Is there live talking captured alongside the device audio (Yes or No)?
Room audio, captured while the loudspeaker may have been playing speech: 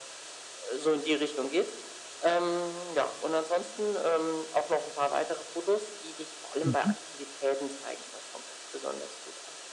Yes